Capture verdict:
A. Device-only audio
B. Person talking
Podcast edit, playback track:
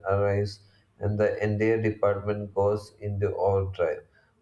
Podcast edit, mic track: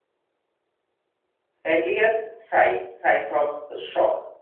B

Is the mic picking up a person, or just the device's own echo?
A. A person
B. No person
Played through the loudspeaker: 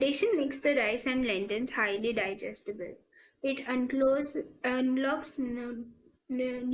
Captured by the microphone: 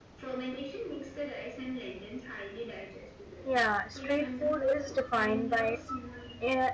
A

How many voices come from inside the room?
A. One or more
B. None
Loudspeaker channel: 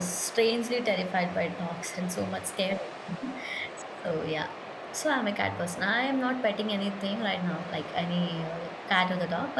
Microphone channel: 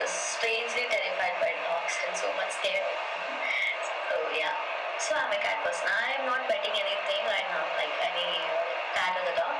B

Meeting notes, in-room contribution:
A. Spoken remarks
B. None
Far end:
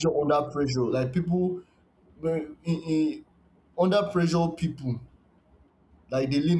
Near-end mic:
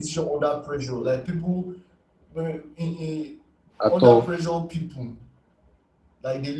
A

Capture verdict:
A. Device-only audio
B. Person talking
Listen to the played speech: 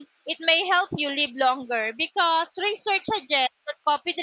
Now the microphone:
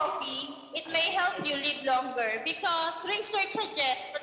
B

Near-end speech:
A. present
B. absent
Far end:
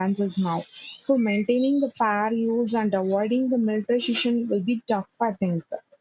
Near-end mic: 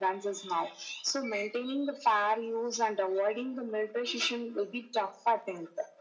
B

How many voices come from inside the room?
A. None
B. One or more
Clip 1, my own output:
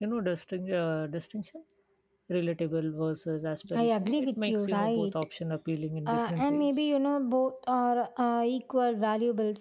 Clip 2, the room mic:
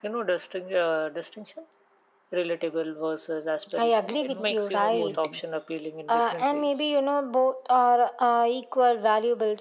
B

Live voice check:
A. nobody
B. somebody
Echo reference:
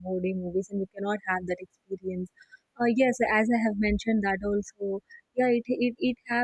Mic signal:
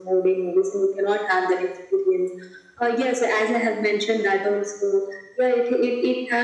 A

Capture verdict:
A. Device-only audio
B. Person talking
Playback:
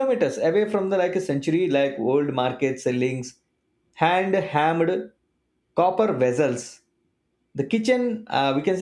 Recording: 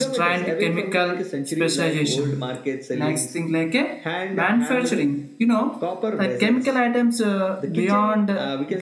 B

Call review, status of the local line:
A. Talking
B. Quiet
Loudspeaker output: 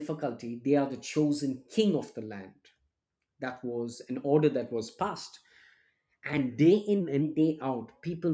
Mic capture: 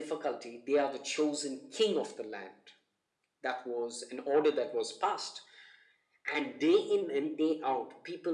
B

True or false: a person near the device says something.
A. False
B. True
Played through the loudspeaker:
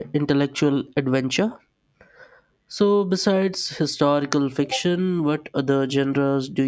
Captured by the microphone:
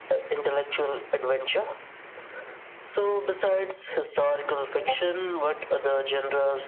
A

